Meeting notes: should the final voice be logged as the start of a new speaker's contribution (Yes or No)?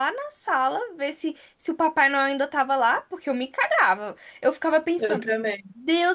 No